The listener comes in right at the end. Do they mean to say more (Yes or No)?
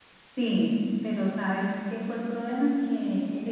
No